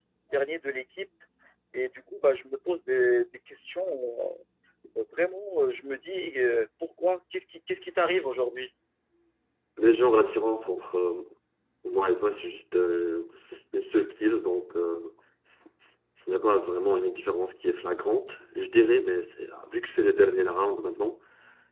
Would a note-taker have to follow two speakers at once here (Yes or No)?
No